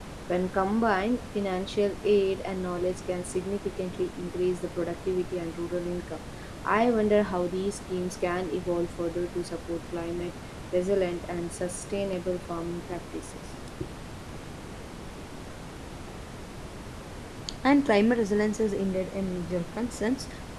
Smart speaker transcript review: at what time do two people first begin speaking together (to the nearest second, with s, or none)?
none